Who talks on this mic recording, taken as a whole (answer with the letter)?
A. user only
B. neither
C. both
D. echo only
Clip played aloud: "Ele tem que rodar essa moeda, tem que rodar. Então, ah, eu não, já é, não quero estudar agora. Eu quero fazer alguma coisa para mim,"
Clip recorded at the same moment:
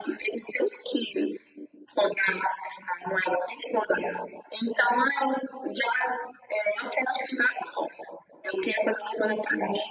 D